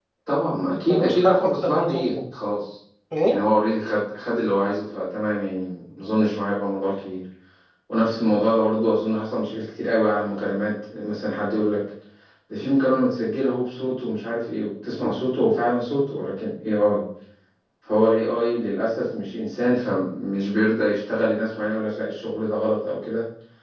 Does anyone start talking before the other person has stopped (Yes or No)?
Yes